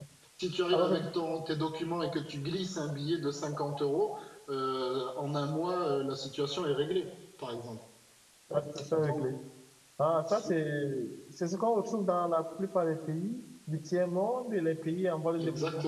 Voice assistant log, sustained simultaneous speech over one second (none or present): none